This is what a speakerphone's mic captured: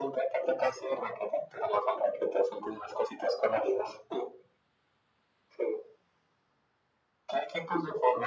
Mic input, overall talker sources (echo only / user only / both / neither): echo only